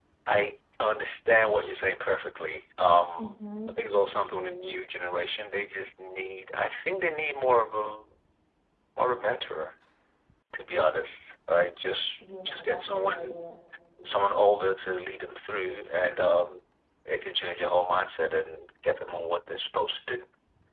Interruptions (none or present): present